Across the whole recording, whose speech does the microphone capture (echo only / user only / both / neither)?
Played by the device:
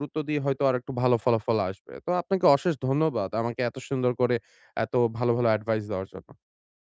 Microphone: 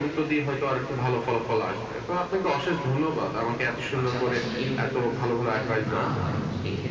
both